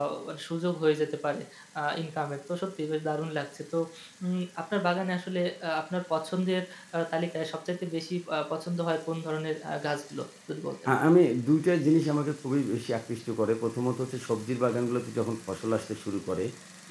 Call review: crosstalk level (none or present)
none